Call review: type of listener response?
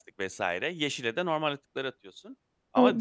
taking over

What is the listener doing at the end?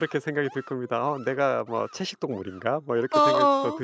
listening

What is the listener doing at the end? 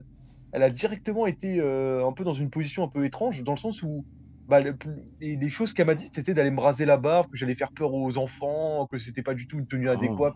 listening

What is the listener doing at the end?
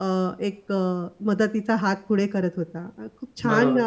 listening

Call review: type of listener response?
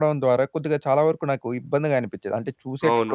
taking over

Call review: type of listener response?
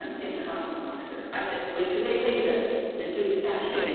taking over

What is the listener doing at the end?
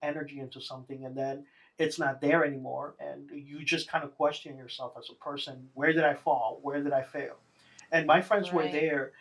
listening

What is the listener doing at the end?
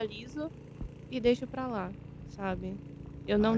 listening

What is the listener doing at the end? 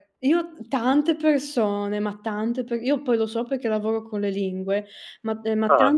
listening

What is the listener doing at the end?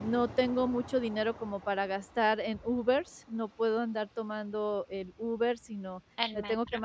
listening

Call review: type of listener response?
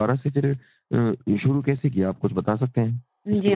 taking over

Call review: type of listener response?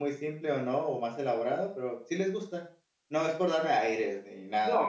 taking over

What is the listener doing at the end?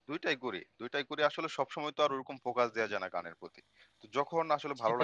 listening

